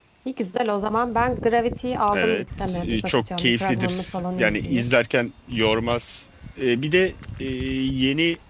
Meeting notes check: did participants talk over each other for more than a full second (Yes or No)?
Yes